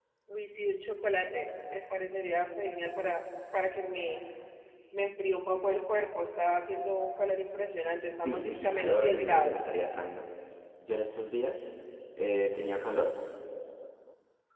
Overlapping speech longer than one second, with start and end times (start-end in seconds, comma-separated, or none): 8.2-9.6